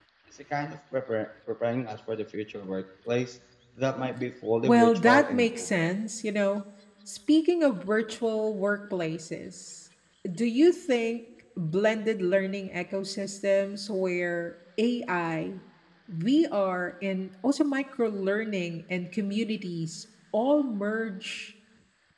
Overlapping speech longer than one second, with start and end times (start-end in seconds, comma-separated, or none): 4.7-5.9